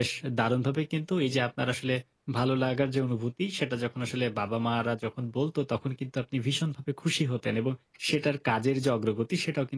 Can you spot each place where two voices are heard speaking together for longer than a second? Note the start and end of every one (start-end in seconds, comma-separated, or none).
none